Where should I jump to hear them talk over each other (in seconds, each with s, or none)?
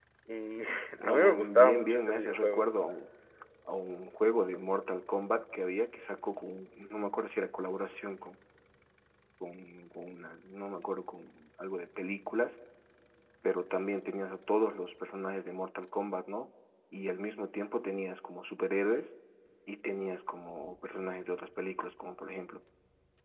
1.0 s